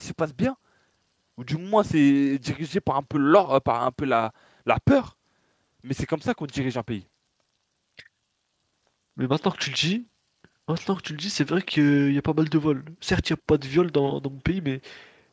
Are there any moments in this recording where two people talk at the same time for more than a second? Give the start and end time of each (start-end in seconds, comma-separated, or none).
none